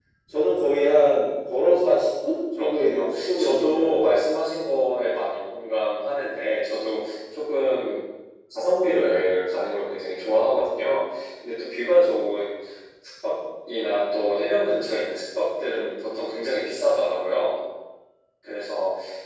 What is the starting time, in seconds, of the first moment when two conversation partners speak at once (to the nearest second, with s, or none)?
3 s